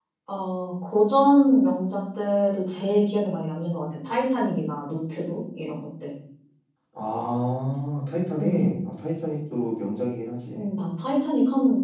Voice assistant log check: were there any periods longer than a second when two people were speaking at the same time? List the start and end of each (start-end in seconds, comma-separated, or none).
none